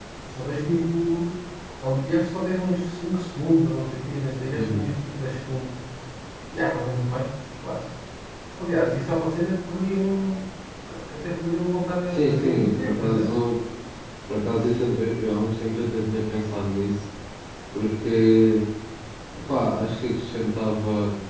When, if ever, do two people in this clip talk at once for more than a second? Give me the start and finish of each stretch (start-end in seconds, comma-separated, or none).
12.1-13.3